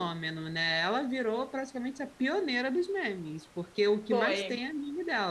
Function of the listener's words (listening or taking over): listening